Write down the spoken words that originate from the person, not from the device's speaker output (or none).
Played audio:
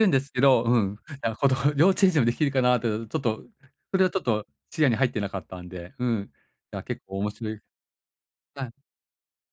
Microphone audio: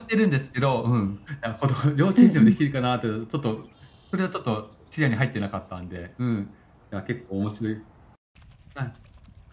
うんうん。